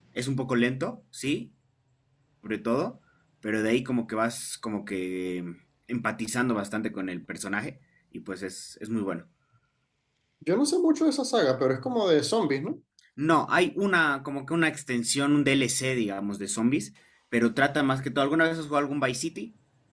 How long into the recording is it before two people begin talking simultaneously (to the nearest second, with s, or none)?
none